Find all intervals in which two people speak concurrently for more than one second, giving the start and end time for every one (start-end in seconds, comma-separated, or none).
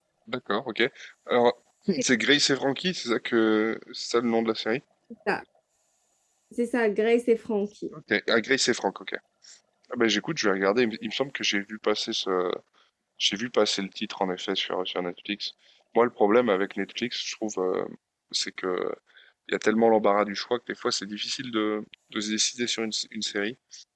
none